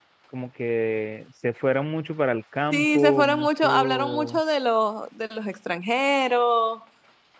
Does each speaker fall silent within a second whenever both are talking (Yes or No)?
No